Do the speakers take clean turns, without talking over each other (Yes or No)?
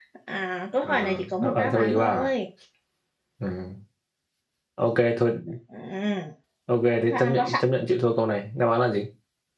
No